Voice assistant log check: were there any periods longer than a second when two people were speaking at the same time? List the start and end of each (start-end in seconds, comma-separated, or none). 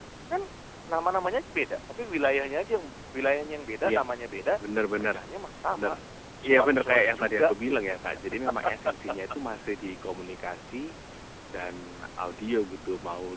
6.5-8.0